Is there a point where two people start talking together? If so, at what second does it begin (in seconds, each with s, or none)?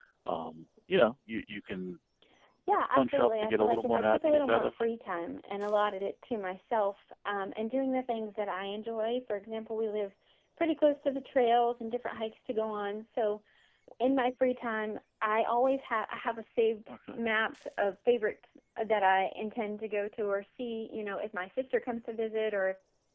2.9 s